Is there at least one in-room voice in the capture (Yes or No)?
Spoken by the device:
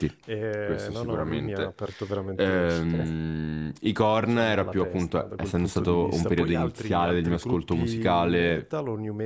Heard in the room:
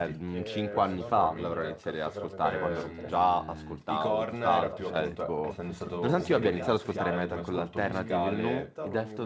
Yes